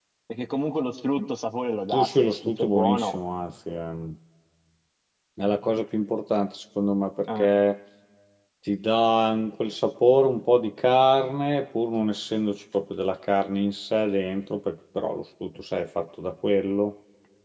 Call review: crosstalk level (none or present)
present